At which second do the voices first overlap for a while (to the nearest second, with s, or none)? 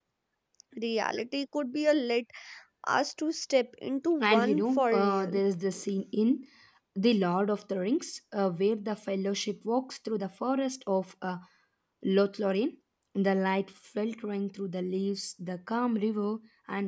4 s